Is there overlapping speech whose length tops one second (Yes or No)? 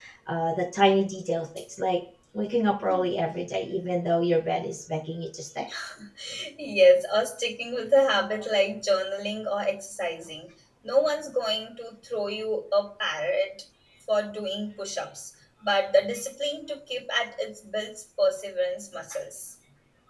No